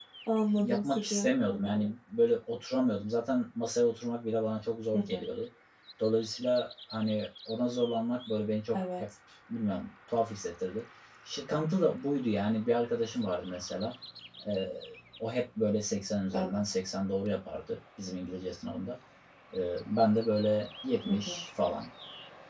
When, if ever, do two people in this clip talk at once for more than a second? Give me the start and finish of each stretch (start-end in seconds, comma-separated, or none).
0.6-1.8